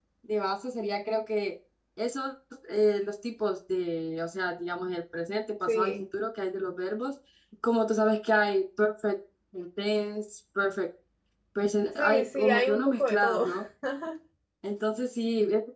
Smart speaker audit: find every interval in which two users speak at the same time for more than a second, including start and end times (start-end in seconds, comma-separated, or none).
12.0-13.4